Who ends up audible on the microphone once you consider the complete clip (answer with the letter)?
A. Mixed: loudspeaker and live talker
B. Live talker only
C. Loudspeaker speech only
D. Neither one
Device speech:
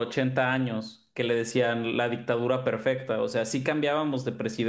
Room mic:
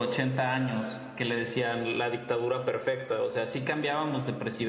C